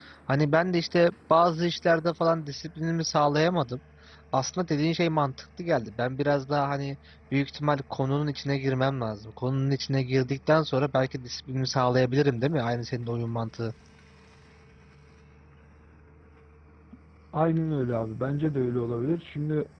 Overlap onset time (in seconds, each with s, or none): none